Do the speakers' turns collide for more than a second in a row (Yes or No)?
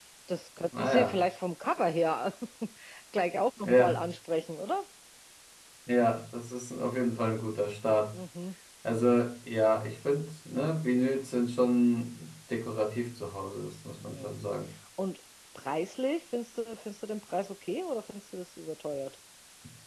No